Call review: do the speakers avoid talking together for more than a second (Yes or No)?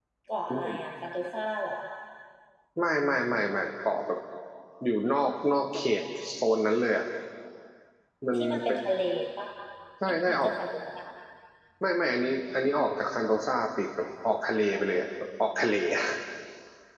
Yes